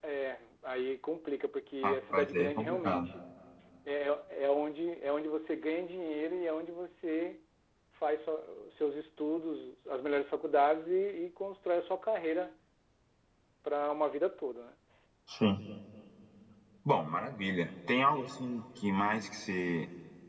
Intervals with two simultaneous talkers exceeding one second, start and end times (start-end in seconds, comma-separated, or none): 1.8-3.1